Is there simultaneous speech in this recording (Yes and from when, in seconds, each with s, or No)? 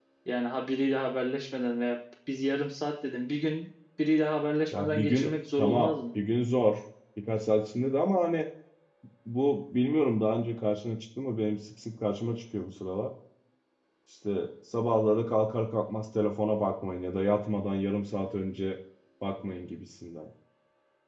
Yes, from 4.7 s